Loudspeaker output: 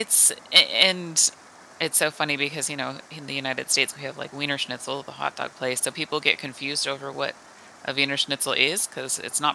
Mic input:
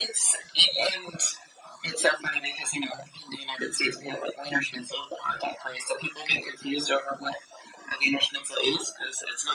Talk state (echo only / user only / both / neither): echo only